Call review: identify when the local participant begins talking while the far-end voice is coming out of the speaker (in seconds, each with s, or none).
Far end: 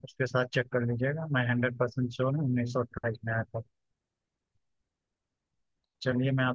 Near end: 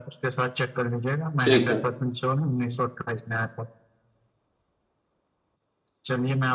1.4 s